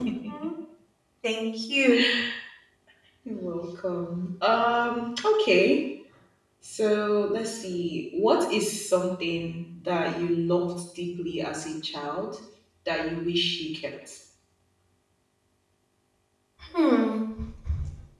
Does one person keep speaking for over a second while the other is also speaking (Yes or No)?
No